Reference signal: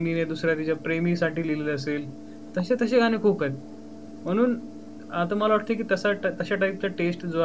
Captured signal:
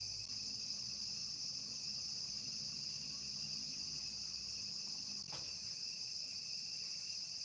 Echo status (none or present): none